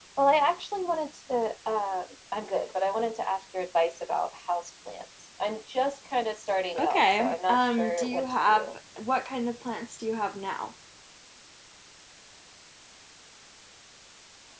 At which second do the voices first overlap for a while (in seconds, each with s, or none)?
6.8 s